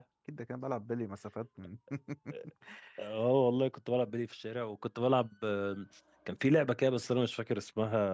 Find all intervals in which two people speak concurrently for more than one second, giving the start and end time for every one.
none

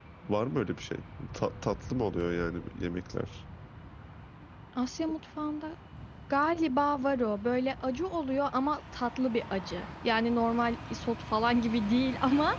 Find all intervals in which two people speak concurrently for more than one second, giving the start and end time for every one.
none

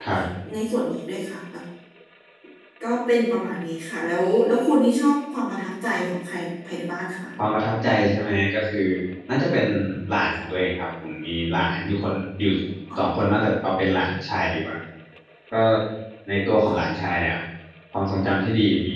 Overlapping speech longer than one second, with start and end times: none

